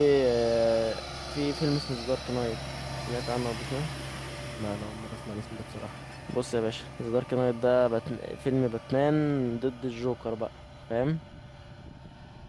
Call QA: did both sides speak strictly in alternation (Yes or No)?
Yes